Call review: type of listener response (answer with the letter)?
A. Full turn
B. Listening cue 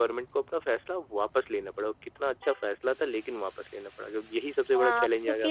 A